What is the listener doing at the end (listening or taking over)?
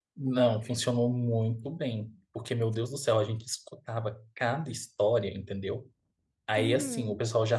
listening